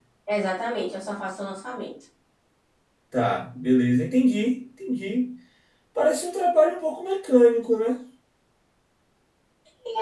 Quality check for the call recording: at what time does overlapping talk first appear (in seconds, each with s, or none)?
none